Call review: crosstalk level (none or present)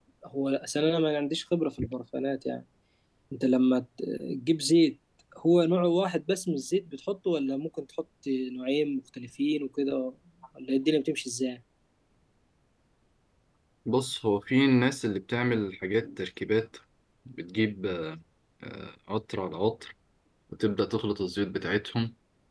none